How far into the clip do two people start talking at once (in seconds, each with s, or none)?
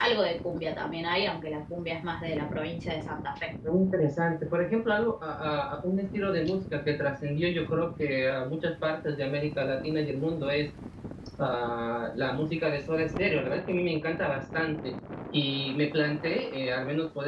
none